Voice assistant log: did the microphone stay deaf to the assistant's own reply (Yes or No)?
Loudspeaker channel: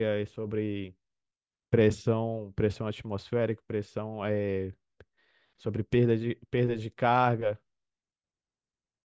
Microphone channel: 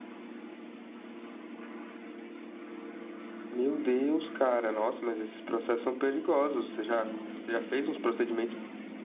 Yes